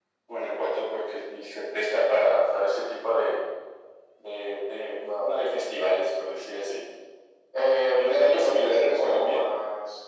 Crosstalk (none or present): present